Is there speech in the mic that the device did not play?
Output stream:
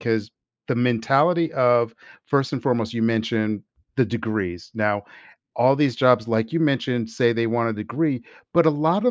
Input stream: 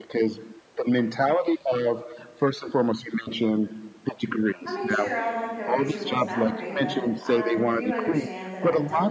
Yes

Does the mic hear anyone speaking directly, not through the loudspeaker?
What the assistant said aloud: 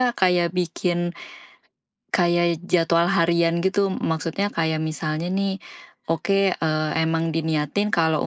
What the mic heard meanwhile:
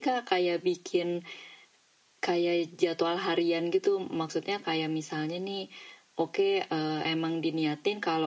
No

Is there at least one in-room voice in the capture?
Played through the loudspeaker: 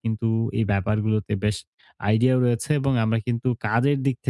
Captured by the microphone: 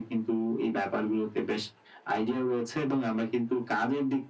No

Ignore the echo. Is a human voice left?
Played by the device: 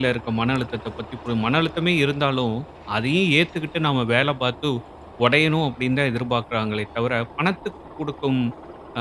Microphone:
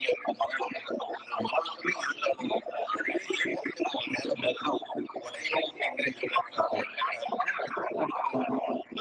No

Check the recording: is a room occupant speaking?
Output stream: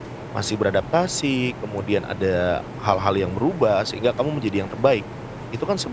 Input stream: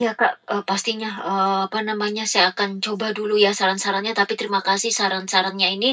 Yes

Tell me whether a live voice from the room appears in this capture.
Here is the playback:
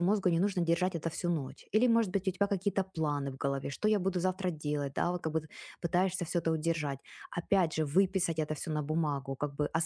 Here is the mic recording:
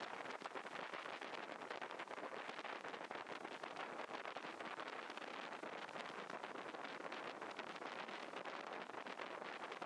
No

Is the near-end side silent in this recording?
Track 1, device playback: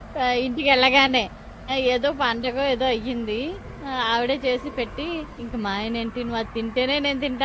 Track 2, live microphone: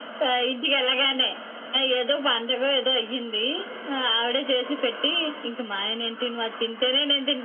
Yes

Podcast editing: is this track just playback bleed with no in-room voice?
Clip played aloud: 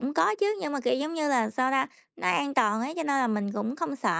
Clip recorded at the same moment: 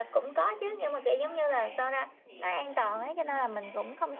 No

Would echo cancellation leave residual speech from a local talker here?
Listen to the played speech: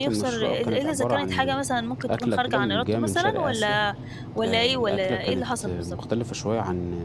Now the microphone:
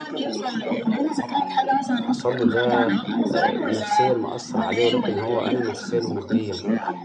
Yes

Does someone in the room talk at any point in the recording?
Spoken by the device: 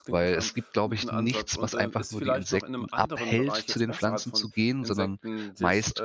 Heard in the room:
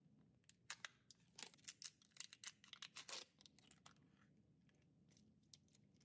No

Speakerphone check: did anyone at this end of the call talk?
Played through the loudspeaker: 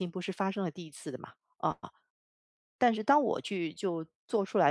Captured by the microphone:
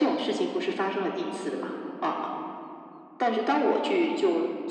No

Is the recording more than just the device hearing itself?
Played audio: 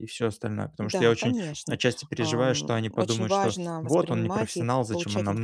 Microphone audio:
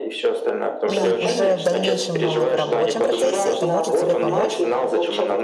Yes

